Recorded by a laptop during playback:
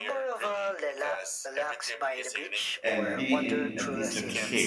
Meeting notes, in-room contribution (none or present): present